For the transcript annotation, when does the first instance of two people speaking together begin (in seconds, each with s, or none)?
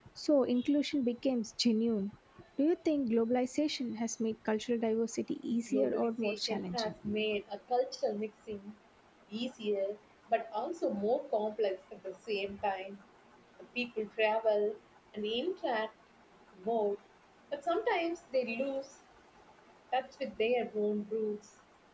5.5 s